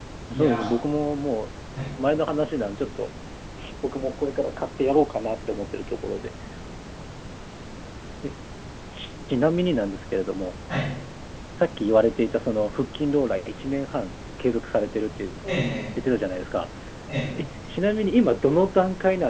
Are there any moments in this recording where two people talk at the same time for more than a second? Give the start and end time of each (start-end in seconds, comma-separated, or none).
none